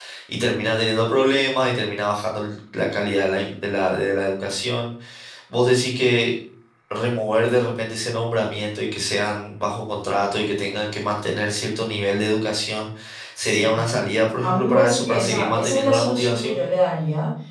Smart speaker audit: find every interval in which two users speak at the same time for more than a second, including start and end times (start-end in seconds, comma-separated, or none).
14.4-16.6